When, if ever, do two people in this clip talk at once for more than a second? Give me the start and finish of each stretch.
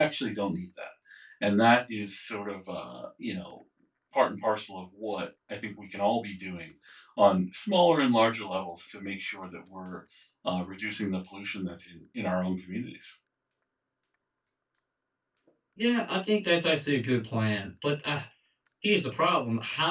none

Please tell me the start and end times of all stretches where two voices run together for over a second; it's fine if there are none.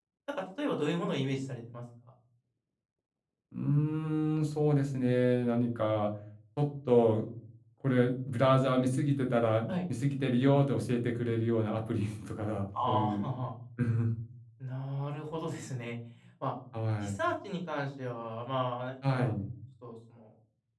none

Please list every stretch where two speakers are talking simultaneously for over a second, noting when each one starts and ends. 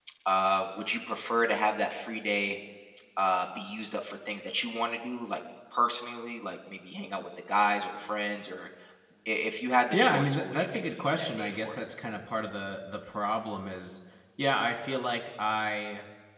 9.9-11.8

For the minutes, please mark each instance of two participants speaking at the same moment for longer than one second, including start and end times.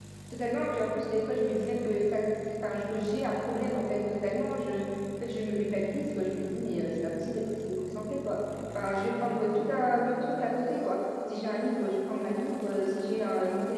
none

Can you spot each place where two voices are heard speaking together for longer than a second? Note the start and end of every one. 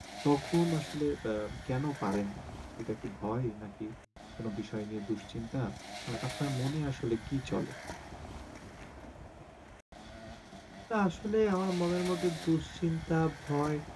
none

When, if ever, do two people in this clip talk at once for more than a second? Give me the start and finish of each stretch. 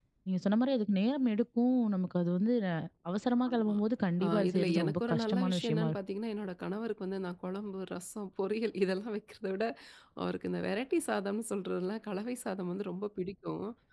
4.2-6.0

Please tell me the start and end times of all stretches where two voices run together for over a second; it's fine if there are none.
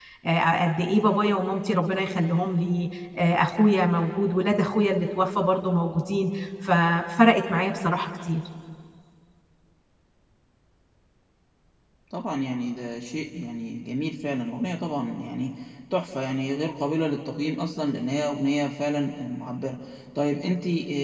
none

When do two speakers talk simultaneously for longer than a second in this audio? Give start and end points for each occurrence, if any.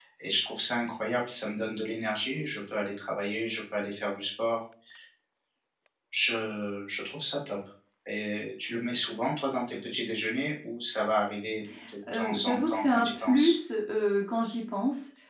12.1-13.6

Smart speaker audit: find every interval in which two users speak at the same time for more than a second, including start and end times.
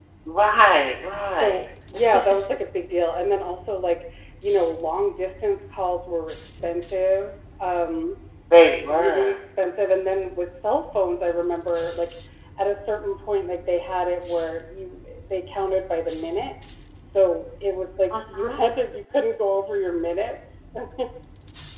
none

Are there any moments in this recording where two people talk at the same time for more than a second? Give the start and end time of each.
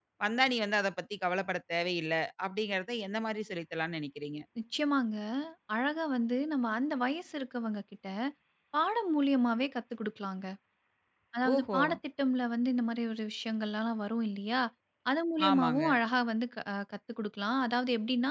none

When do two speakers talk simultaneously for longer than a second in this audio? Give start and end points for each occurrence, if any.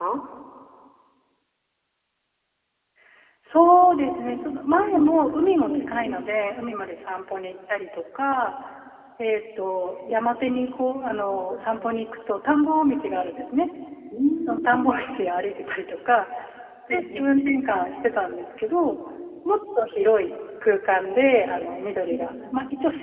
none

